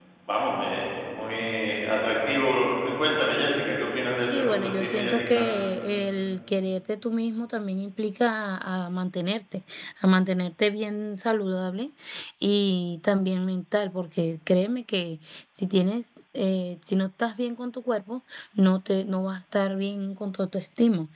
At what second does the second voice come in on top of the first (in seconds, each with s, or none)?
4.3 s